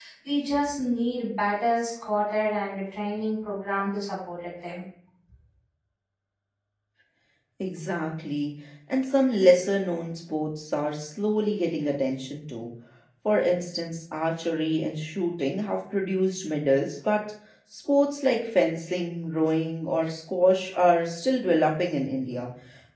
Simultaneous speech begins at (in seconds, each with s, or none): none